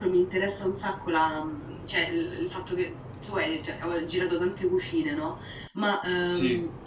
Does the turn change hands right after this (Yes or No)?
No